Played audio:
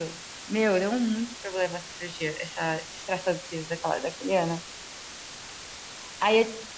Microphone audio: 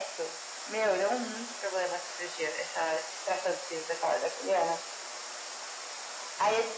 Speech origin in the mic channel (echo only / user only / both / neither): echo only